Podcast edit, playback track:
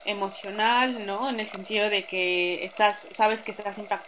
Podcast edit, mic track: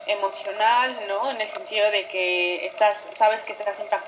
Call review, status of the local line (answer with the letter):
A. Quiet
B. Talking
A